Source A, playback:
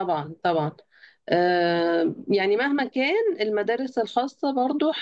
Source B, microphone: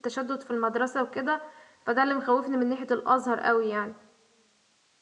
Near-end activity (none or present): present